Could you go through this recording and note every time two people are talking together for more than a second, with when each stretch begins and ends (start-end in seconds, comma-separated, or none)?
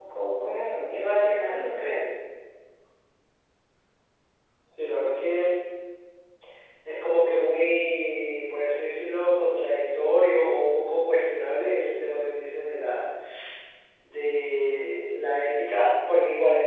none